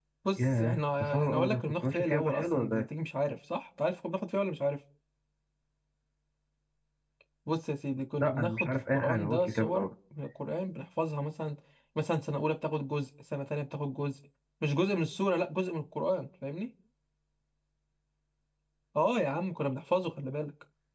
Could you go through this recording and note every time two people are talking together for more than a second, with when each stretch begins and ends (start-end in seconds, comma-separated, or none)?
0.6-2.8, 8.2-9.9